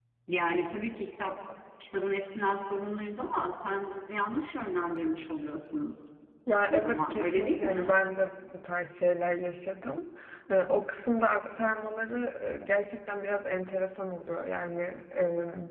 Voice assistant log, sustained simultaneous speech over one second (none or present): present